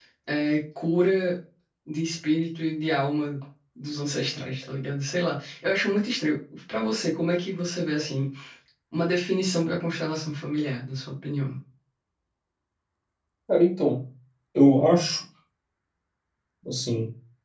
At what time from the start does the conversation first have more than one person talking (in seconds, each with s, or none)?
none